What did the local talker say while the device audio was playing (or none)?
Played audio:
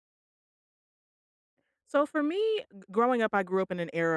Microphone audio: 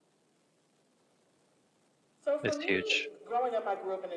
it's huge.